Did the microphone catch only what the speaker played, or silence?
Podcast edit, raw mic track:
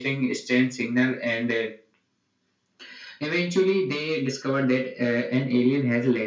Yes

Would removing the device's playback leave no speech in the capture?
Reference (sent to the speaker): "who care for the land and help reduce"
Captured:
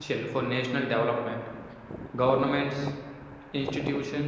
No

